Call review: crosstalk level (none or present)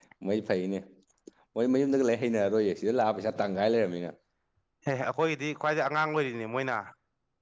none